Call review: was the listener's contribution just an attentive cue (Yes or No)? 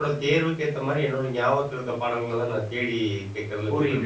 No